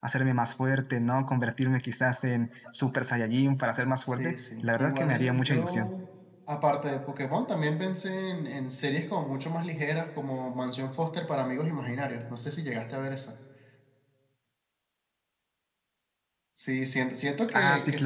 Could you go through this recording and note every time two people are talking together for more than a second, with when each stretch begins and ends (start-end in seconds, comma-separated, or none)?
4.0-5.9